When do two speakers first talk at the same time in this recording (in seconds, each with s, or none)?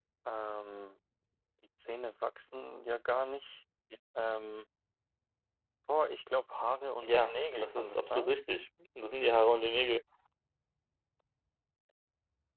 7.0 s